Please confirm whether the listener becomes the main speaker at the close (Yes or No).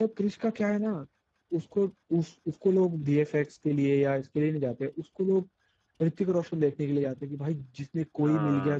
No